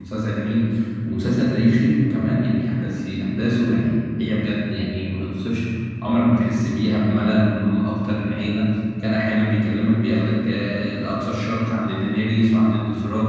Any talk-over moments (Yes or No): No